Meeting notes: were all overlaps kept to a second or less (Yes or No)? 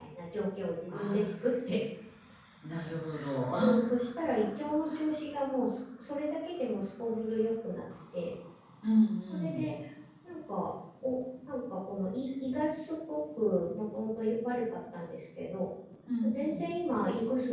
Yes